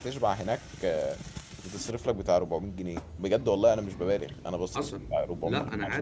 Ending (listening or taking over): taking over